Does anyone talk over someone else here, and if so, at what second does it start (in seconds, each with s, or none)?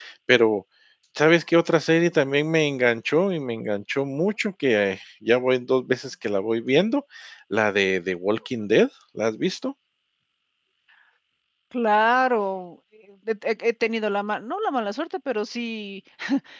none